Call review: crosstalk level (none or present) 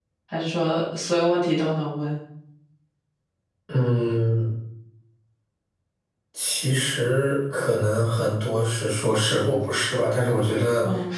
none